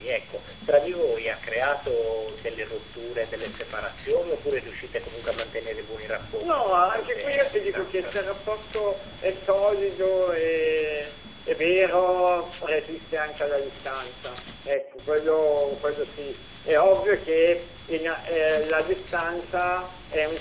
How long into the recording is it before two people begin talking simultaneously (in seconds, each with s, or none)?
6.4 s